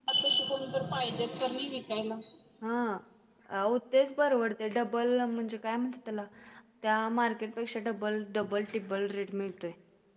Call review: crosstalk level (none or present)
none